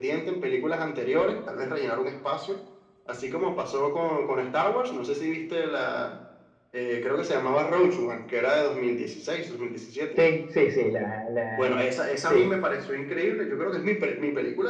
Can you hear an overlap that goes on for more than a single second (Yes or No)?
No